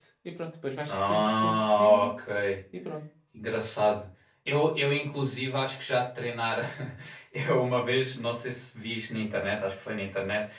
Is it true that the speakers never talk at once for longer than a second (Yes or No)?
No